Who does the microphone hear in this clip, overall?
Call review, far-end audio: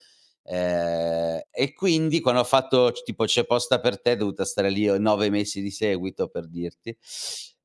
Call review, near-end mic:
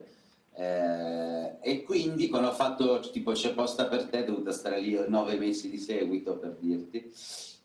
echo only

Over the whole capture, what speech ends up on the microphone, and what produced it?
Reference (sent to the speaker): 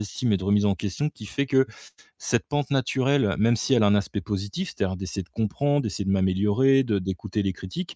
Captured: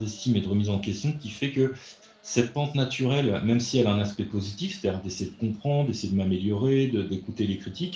echo only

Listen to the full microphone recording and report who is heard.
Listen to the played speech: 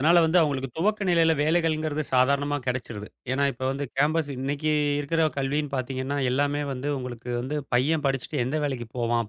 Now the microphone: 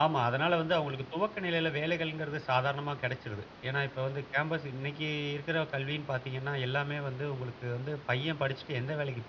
echo only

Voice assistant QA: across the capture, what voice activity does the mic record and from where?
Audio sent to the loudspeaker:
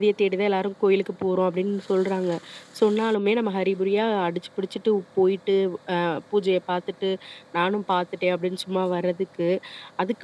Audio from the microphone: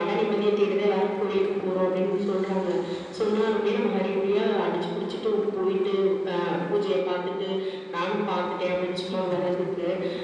both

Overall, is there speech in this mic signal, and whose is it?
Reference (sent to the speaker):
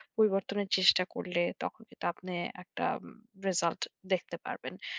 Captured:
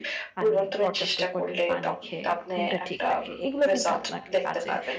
both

